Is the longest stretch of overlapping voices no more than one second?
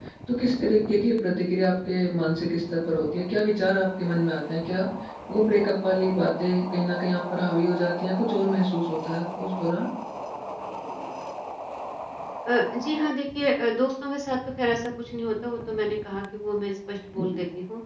Yes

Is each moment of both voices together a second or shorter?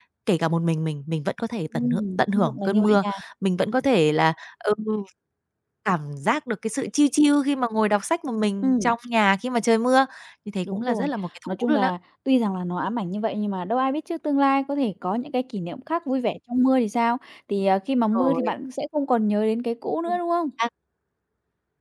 No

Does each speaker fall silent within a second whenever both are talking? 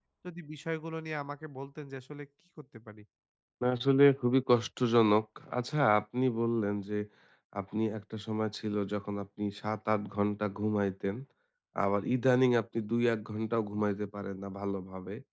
Yes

